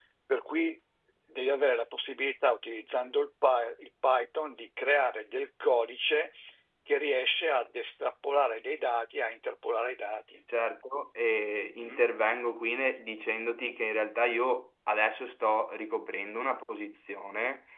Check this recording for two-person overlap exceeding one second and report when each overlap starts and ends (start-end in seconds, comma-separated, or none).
none